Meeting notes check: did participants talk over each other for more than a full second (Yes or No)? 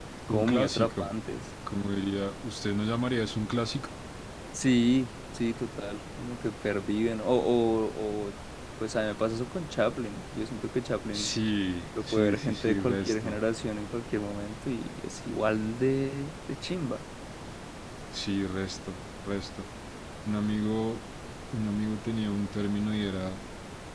Yes